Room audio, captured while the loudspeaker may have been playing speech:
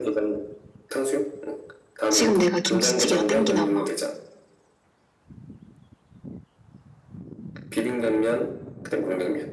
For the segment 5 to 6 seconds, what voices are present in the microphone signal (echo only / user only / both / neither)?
neither